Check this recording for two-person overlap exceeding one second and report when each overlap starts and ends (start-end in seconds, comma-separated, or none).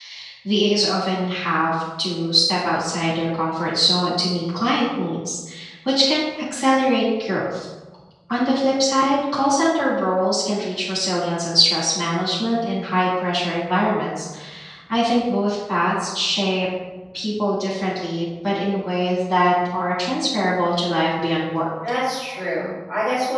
none